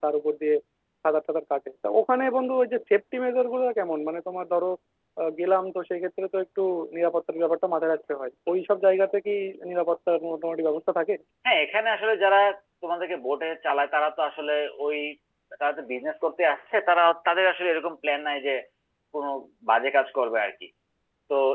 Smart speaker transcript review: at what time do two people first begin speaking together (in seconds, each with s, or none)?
none